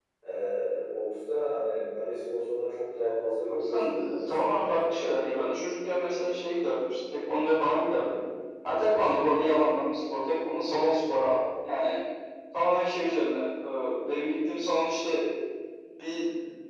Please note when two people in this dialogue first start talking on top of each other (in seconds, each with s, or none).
3.5 s